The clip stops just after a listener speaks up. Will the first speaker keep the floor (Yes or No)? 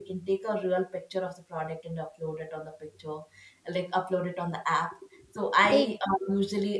Yes